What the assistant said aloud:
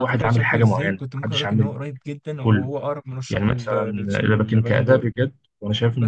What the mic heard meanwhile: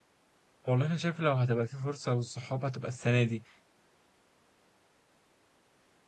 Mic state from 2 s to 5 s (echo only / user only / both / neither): user only